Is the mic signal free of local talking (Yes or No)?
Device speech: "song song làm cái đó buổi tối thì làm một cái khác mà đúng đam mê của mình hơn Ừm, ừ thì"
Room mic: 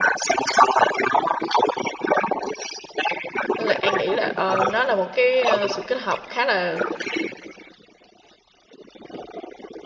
No